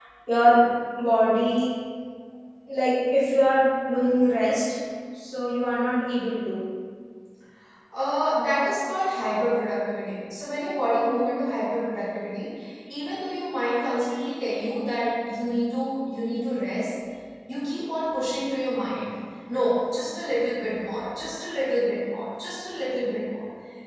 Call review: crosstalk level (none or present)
none